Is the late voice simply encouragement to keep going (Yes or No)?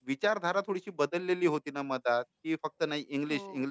Yes